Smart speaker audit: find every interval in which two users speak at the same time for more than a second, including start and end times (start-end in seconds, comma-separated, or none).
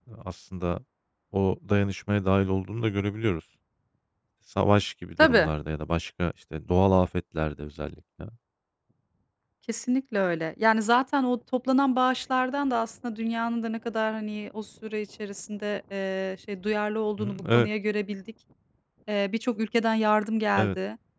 none